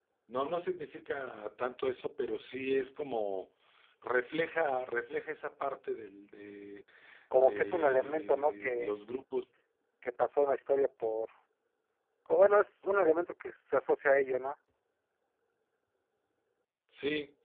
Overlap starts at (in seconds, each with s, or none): 7.4 s